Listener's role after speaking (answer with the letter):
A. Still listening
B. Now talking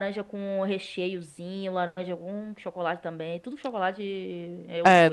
B